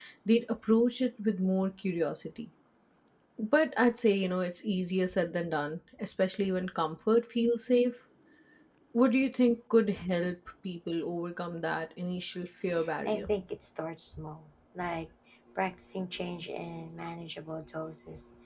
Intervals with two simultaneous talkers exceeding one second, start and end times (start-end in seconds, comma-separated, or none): none